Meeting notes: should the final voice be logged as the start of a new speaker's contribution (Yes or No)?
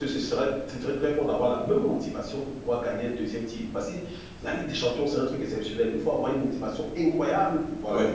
No